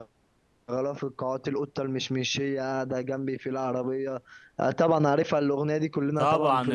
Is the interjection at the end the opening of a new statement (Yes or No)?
Yes